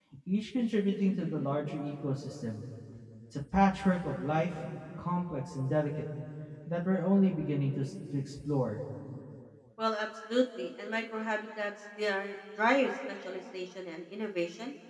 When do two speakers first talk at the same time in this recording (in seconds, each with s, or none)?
none